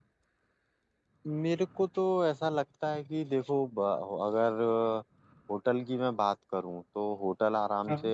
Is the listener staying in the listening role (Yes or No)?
Yes